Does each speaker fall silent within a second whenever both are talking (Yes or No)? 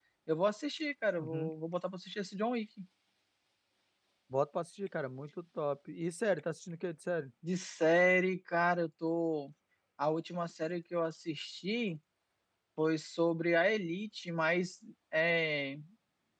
Yes